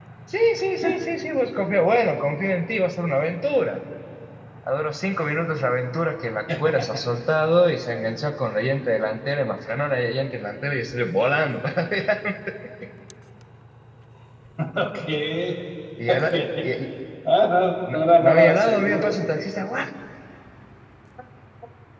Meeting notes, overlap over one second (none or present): present